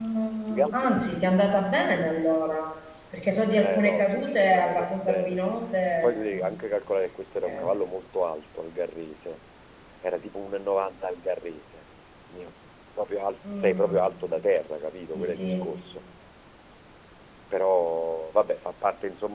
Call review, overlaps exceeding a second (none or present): present